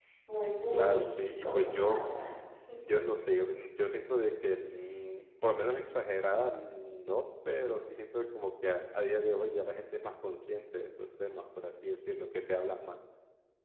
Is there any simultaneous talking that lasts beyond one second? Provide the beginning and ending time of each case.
0.7-2.0

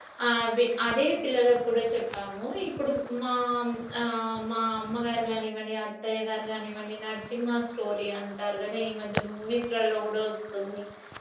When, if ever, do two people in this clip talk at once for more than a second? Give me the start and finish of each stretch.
none

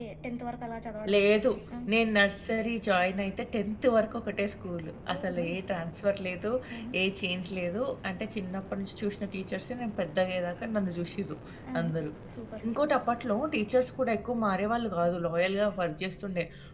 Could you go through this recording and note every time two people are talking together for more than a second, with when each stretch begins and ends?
none

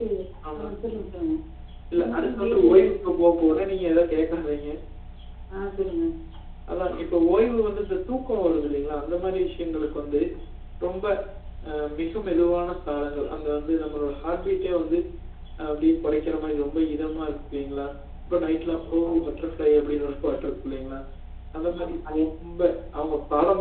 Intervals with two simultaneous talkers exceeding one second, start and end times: 1.9-3.5

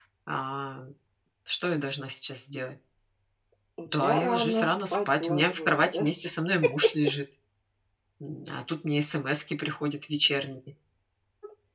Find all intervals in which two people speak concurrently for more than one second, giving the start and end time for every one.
4.1-6.1

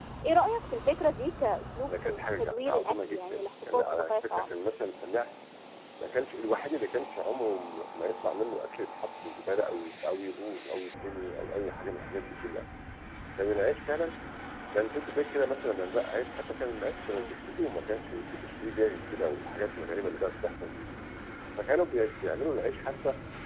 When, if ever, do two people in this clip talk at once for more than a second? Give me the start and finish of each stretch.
1.9-4.5

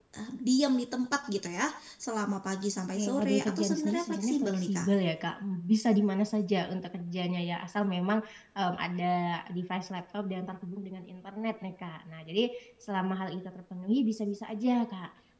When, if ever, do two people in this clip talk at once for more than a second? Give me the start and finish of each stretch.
2.9-4.9

